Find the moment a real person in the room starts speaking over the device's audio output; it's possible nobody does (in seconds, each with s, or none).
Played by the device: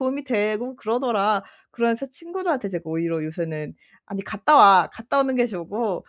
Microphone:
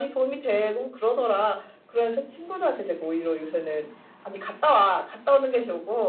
none